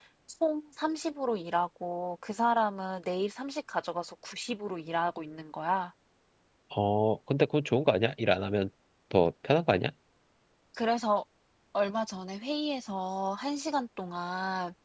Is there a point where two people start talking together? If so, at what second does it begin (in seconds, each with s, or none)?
none